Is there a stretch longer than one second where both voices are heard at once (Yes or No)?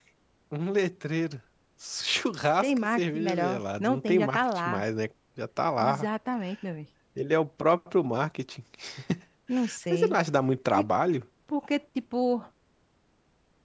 Yes